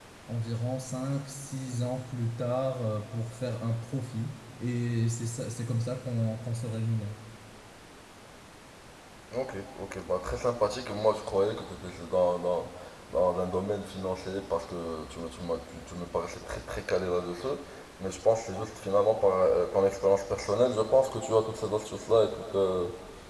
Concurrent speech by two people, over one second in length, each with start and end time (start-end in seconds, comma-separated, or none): none